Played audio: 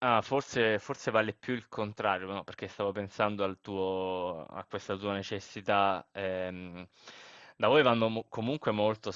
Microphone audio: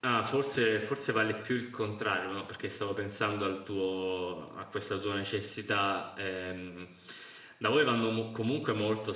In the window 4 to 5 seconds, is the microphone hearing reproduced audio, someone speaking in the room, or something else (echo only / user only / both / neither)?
echo only